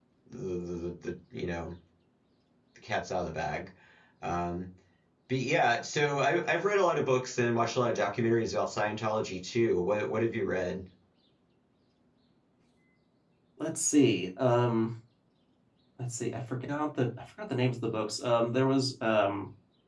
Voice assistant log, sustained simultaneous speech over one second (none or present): none